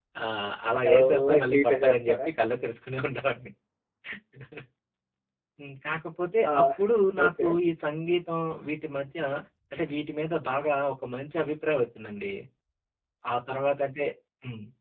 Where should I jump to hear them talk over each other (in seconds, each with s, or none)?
0.8 s